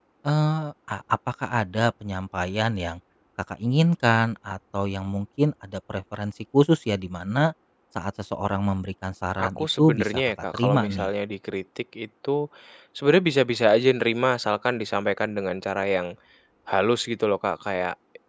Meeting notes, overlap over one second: present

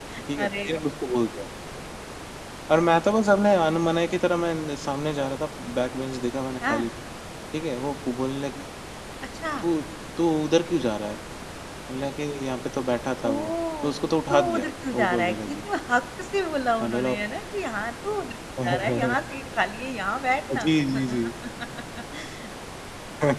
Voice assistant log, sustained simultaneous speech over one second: present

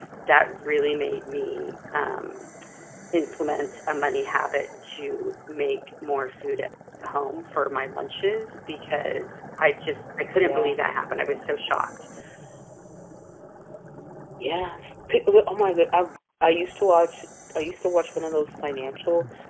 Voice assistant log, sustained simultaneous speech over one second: none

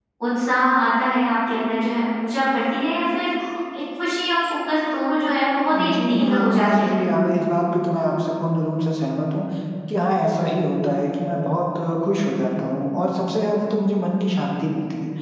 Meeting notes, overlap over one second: present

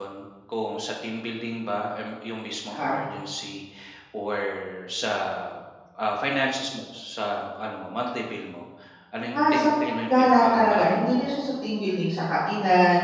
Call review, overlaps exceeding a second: present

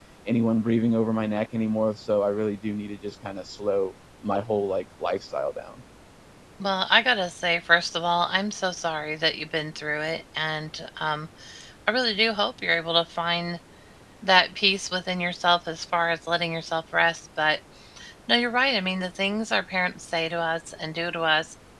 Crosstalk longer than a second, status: none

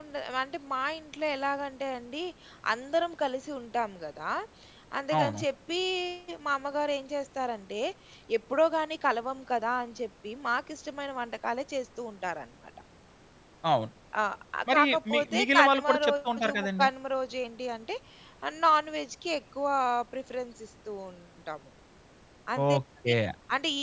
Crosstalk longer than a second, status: present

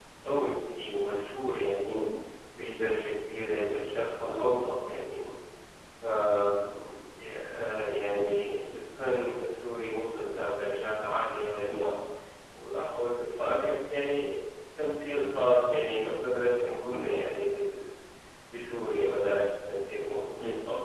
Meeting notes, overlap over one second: none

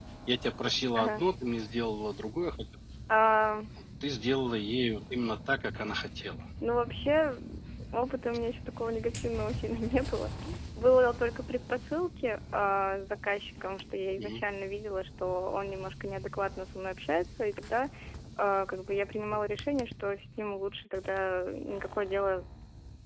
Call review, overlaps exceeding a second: none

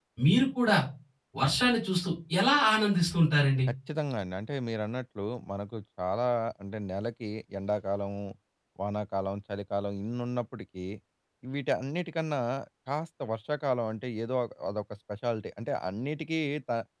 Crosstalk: none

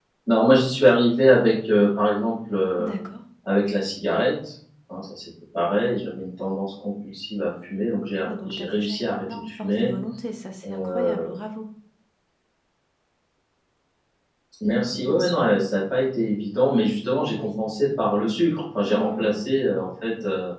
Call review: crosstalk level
present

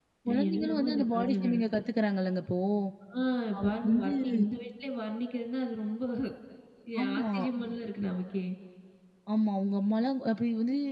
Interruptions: present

